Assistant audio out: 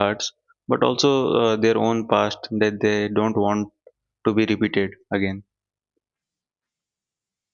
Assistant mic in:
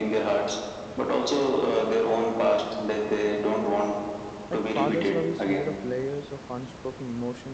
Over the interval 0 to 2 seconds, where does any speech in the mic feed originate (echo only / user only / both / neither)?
echo only